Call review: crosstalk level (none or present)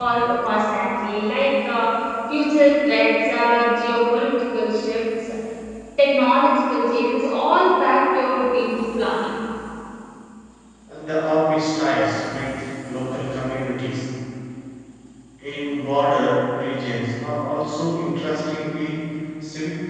none